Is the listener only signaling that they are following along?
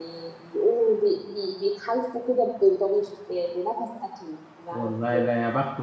No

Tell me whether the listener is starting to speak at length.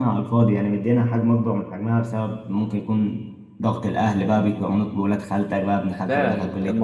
Yes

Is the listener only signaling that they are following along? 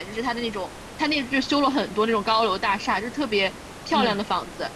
Yes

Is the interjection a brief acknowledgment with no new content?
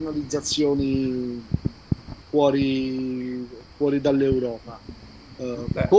Yes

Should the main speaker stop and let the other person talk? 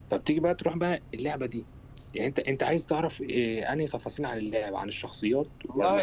Yes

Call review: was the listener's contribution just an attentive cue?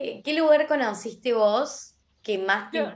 Yes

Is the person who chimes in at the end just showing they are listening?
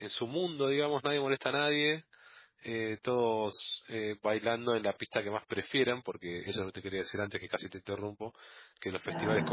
Yes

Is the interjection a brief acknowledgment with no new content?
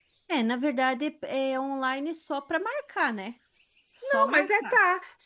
No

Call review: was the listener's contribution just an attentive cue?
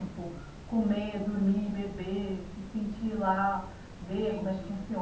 No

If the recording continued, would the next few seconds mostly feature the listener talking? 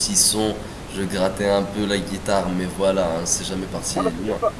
Yes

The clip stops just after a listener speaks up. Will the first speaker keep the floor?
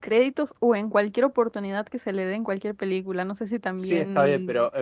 No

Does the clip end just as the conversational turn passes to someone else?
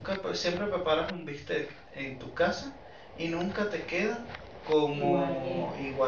No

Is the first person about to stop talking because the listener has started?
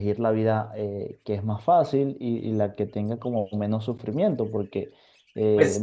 Yes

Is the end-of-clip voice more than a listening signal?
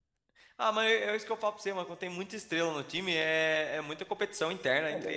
Yes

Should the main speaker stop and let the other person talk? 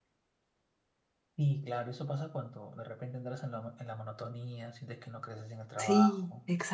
Yes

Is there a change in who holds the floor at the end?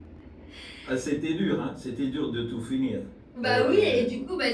Yes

